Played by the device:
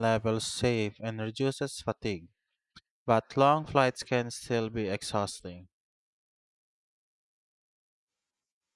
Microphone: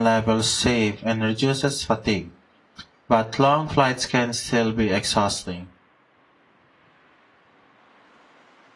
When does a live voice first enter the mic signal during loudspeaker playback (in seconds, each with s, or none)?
none